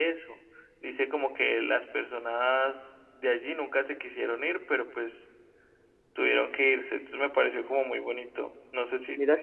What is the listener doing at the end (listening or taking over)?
taking over